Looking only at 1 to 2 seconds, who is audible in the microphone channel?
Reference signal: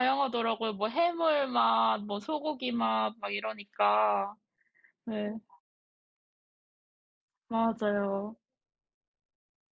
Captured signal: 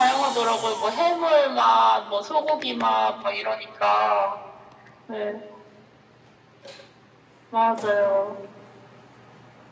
echo only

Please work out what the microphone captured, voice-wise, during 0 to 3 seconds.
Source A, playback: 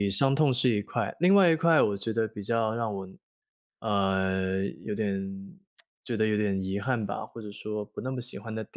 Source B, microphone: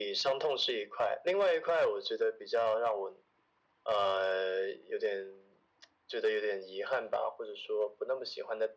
echo only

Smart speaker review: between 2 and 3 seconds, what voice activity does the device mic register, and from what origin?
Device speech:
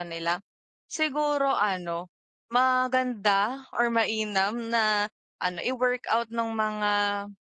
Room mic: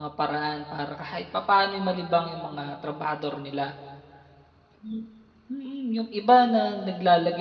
user only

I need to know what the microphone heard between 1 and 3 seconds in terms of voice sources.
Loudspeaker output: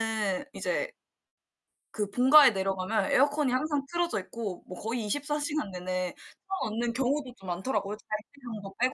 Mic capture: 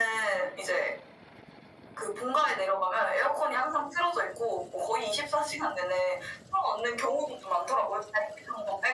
echo only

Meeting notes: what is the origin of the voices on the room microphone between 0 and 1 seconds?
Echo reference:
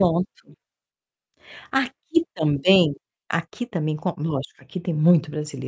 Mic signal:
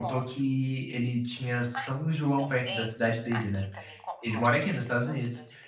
both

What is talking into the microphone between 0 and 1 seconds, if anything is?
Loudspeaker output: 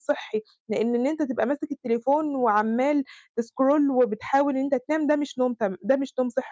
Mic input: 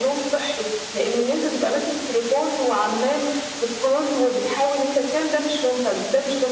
echo only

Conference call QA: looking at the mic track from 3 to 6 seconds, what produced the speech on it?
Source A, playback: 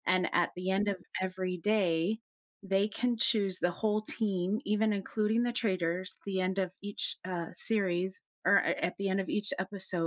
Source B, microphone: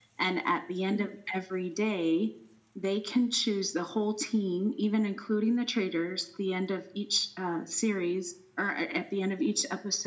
echo only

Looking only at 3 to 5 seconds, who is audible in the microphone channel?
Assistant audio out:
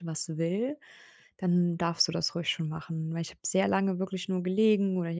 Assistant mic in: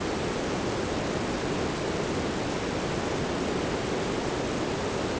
neither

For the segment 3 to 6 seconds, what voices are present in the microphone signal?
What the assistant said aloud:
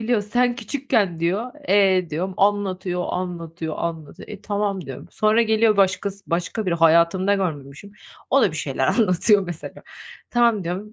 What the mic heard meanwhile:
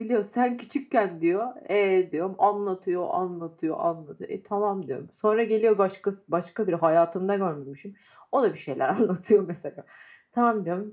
echo only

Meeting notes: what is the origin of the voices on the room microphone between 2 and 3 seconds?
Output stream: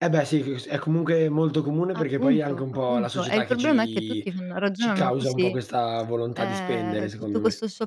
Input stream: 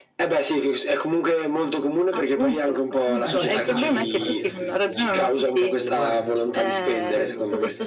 echo only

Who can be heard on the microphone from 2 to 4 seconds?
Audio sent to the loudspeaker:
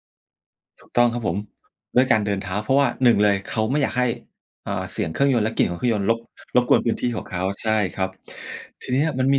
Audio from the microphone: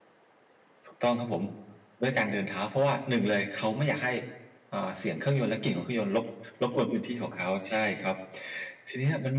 echo only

